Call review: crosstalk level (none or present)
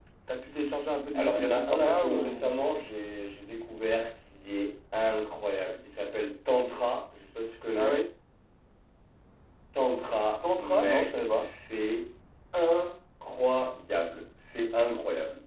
present